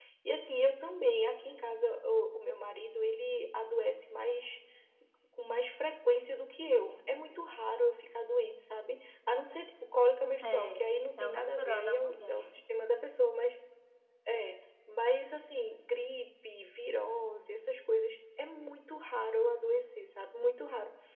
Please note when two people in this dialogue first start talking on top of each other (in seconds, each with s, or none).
10.4 s